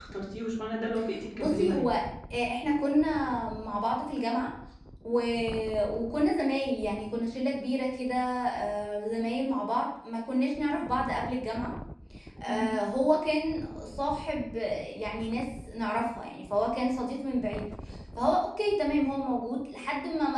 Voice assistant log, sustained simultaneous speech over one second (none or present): none